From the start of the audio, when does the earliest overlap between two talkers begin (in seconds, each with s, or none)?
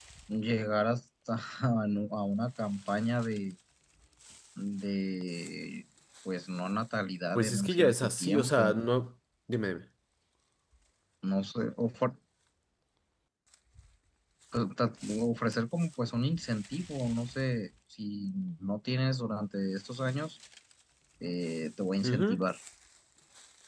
7.3 s